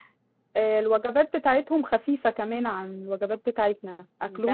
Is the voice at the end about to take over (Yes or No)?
Yes